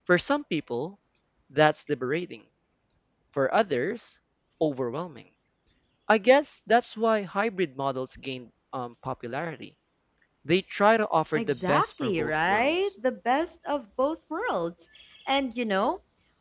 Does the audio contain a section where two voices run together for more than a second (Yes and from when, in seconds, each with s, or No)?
Yes, from 11.3 s